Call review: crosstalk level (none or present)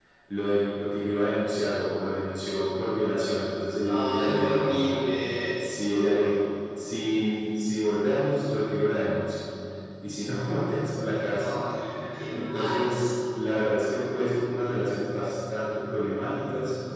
present